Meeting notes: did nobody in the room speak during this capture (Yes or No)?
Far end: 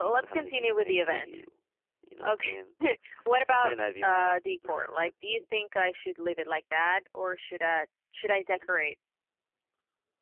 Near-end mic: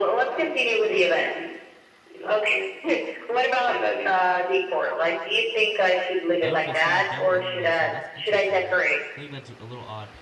No